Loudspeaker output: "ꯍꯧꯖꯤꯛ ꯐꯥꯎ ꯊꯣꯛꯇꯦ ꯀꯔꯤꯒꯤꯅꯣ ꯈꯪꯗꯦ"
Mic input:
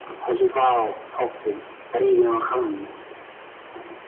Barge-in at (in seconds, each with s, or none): none